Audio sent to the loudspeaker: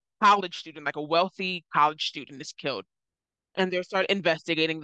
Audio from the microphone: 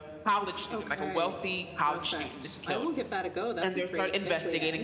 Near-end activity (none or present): present